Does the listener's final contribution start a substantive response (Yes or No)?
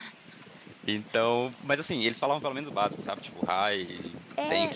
Yes